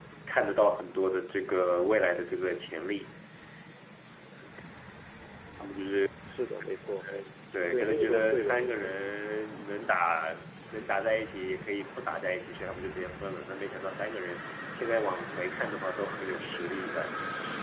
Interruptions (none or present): present